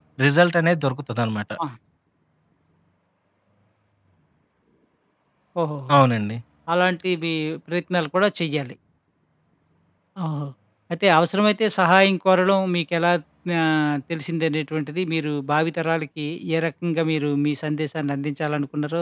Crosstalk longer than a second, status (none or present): none